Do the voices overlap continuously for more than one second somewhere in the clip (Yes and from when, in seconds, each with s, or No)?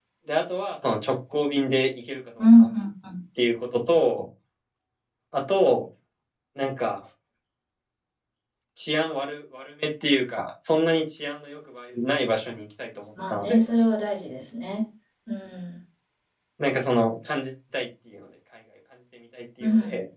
No